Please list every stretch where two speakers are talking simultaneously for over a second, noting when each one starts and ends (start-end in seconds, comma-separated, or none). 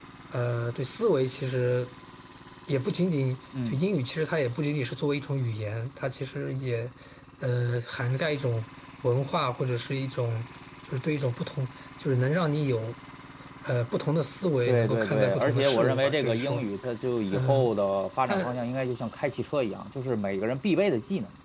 14.7-16.6